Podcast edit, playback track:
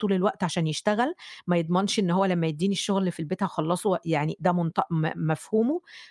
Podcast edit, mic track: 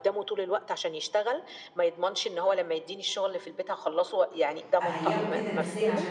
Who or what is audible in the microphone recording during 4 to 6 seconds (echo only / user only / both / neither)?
both